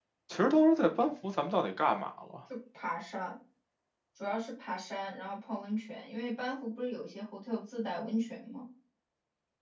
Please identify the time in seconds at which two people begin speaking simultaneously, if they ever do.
none

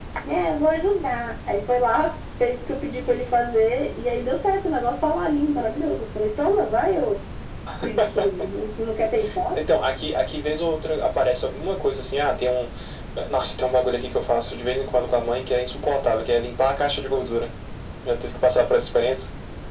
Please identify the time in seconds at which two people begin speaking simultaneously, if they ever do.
none

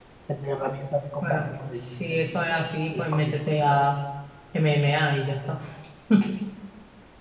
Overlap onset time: 1.2 s

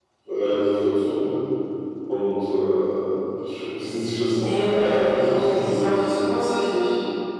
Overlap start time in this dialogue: 4.3 s

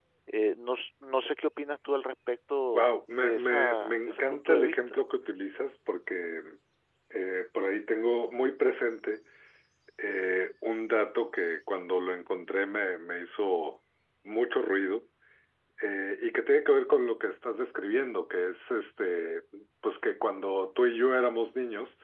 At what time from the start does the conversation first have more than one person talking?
2.7 s

